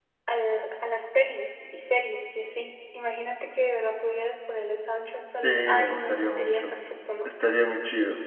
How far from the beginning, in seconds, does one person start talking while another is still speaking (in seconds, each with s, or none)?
5.4 s